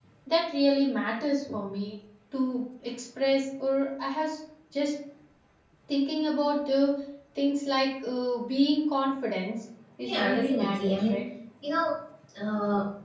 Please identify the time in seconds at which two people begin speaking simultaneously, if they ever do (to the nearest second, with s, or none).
10 s